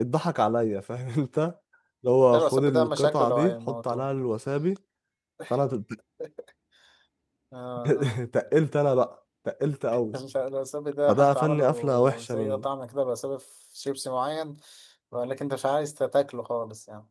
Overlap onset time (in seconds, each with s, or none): 2.3 s